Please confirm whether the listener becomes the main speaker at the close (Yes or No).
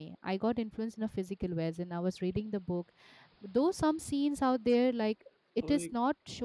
No